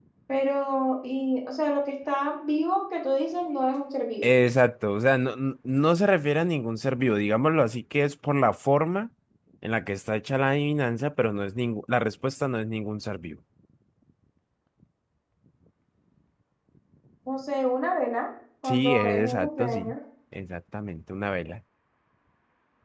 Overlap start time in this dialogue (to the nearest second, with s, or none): 19 s